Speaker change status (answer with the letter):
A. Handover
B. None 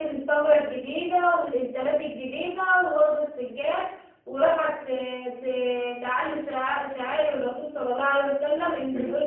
B